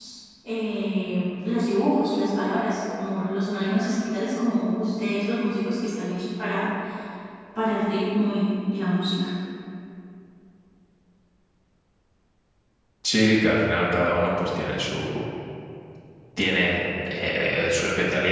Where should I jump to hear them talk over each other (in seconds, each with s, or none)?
none